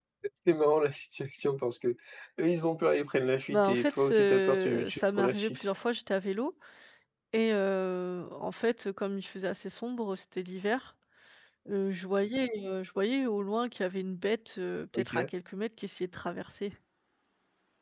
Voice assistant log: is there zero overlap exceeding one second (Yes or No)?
No